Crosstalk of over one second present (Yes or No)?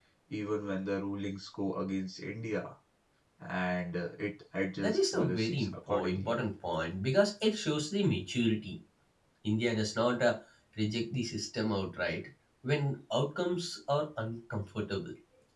Yes